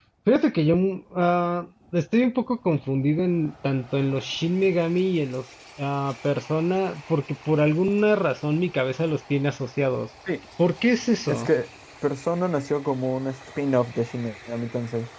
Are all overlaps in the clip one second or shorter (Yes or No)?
Yes